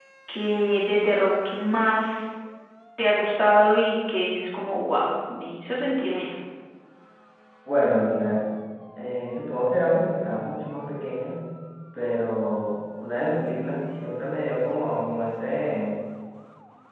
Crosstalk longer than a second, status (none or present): none